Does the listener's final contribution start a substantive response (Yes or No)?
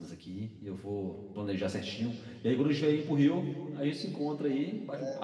Yes